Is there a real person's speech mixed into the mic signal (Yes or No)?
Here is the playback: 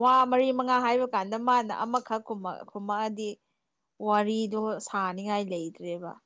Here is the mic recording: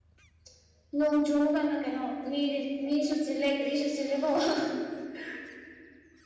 Yes